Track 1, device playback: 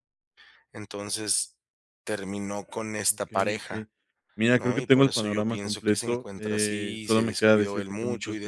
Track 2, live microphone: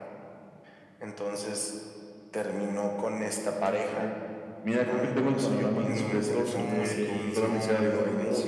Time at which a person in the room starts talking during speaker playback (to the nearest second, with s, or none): 6 s